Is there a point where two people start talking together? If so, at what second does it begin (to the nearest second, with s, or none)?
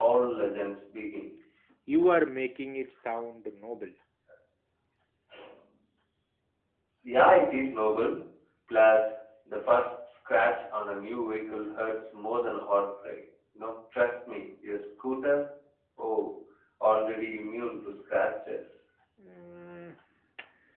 none